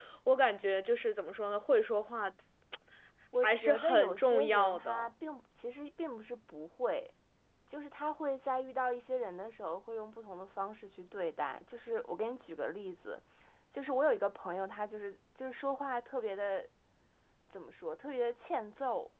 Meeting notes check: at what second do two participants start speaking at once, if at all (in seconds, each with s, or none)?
3.4 s